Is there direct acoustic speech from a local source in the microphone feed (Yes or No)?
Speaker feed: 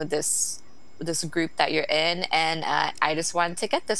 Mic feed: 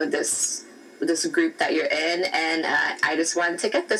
No